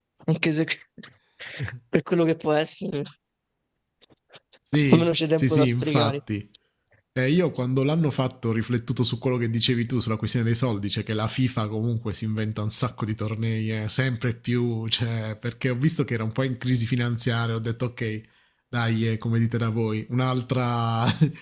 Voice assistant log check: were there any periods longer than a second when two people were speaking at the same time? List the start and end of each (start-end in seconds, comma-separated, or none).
4.9-6.2